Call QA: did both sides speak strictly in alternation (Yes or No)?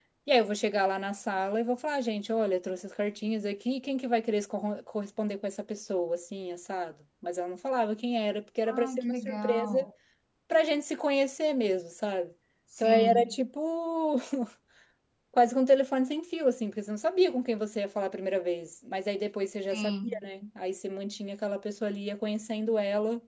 No